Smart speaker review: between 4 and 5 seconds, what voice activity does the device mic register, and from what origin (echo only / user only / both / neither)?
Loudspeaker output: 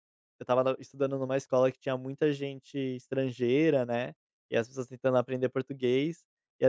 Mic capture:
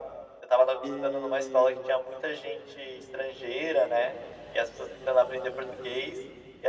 echo only